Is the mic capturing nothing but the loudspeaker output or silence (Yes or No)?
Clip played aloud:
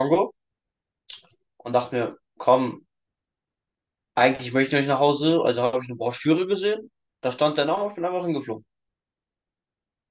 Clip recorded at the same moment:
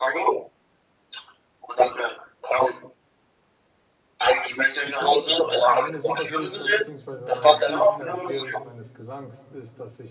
No